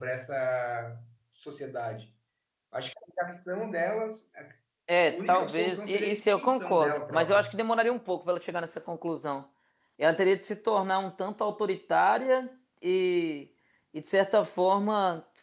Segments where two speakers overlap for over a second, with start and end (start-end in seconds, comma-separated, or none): 5.1-7.5